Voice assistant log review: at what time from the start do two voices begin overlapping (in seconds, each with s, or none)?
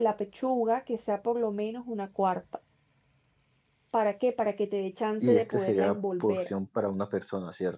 5.2 s